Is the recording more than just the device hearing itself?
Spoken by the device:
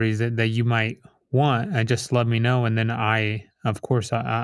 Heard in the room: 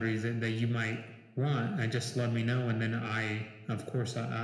No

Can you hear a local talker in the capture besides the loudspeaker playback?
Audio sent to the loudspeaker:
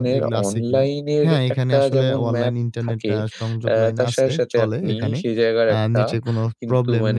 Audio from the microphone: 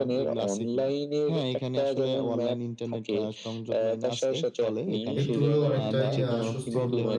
Yes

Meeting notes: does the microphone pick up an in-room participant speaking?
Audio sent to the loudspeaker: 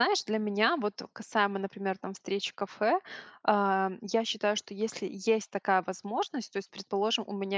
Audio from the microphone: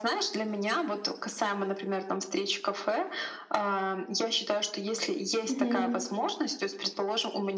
Yes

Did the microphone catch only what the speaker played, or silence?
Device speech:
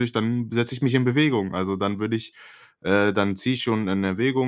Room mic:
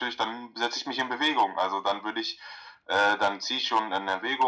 Yes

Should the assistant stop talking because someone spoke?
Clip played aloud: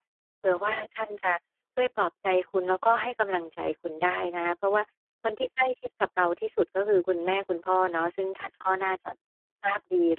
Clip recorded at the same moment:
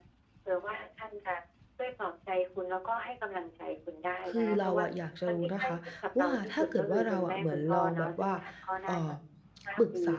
Yes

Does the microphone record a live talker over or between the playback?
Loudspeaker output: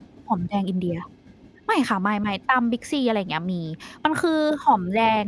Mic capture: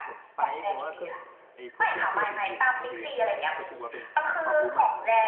Yes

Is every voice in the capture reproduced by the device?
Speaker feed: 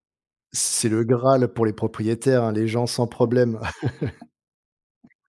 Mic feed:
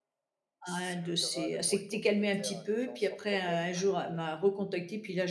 No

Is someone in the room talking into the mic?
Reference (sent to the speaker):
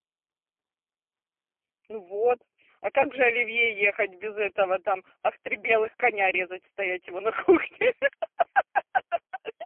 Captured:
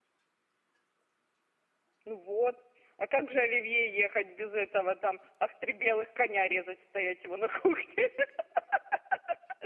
No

